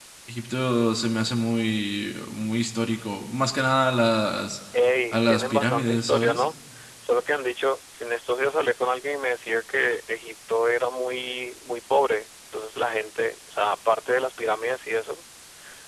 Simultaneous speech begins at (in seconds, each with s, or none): 5.1 s